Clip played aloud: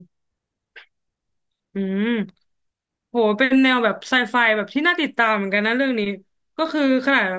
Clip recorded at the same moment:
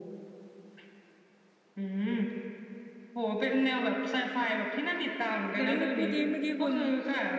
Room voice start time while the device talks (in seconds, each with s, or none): 5.5 s